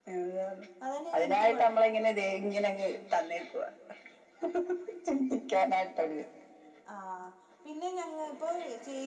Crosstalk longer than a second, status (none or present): none